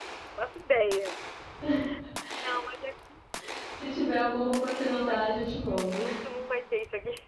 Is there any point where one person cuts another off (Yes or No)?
Yes